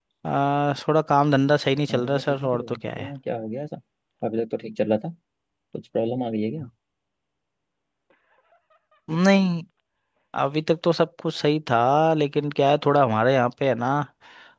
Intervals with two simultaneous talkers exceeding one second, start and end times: 1.9-3.1

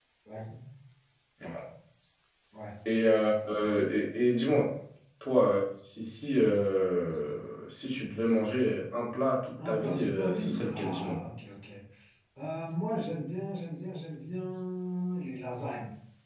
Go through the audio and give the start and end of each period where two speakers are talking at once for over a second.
9.6-11.2

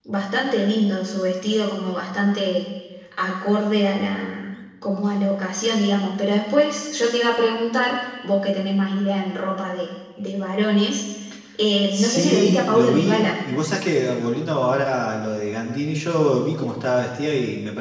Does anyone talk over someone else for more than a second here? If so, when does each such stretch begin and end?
11.9-13.3

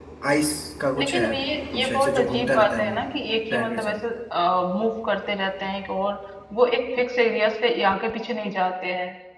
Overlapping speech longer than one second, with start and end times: 1.7-3.0

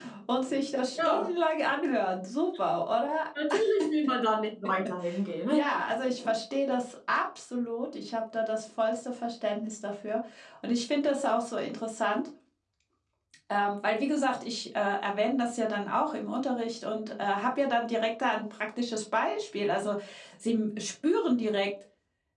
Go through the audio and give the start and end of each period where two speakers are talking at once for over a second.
none

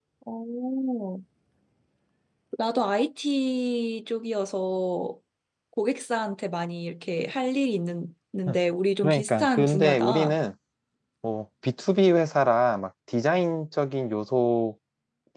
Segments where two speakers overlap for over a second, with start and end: 9.0-10.4

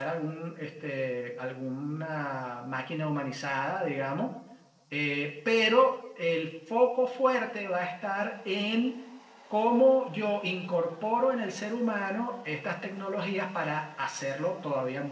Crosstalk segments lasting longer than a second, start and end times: none

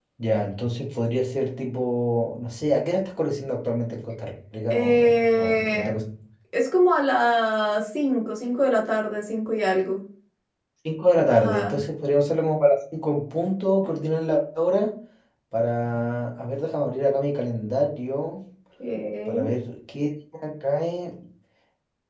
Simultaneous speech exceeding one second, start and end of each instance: 4.7-6.0

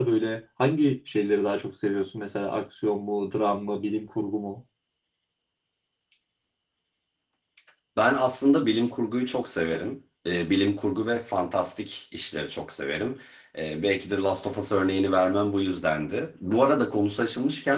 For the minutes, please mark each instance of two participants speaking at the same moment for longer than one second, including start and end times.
none

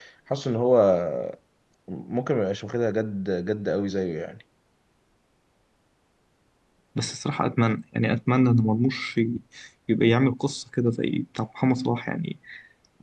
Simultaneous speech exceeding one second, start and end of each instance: none

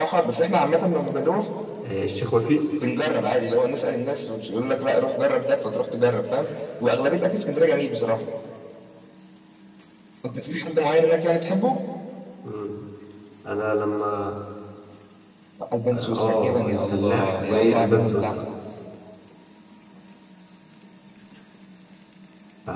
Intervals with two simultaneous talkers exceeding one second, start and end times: 15.9-18.4

